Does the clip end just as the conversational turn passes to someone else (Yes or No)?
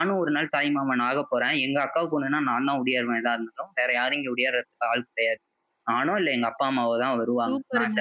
Yes